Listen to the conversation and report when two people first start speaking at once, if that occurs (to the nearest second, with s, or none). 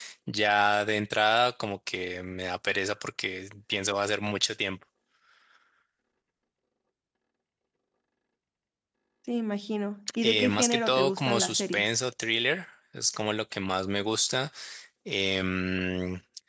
10 s